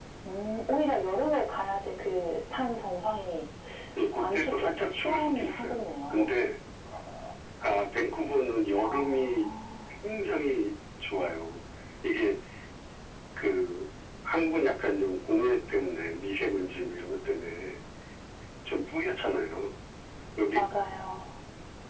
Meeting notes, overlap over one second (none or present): present